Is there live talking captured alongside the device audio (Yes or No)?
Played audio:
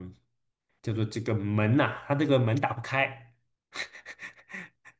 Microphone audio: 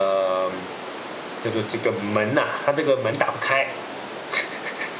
No